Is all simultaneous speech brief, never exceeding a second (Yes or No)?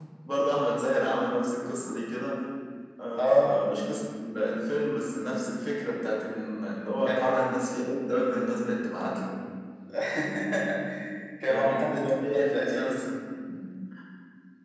No